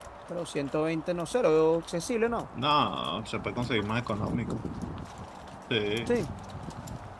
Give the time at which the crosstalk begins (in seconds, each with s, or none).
none